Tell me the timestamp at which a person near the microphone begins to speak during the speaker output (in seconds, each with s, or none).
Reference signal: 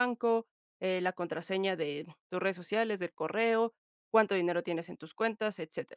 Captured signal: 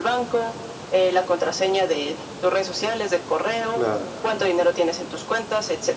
3.7 s